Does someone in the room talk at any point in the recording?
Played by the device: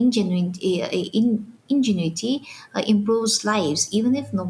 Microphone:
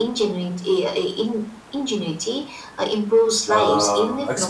Yes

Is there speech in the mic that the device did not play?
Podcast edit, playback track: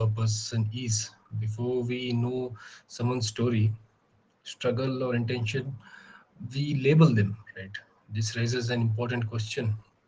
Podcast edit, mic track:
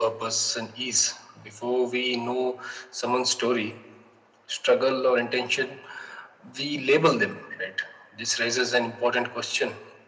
No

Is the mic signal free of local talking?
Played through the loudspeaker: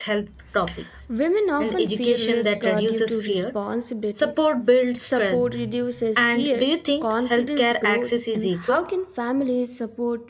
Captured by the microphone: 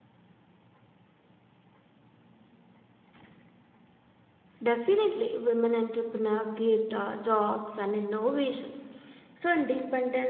No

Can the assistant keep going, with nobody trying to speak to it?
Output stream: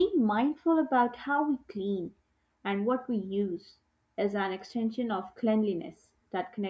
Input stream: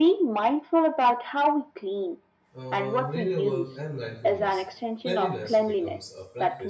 No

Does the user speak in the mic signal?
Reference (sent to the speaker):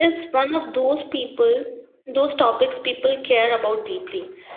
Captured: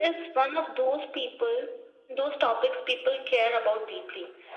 No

